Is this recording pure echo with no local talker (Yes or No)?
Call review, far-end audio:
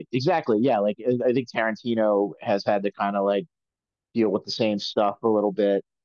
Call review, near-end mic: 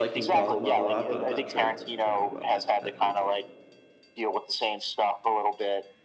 No